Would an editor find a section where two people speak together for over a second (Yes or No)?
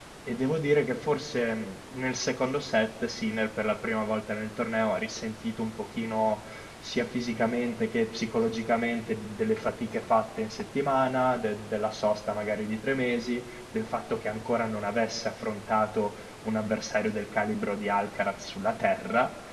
No